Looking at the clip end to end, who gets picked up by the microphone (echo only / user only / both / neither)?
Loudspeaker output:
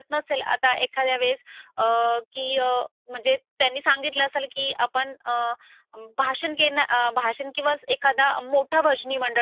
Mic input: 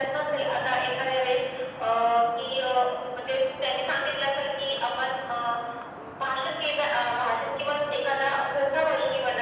echo only